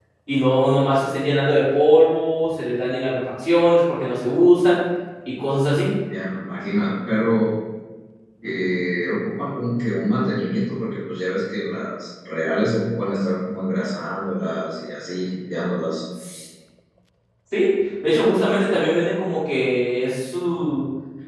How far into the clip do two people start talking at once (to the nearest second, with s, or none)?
none